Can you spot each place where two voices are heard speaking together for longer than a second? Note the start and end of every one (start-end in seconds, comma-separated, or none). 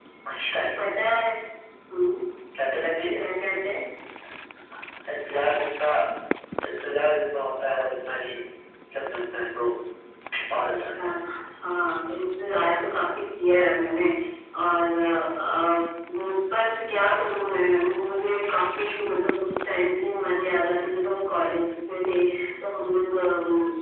none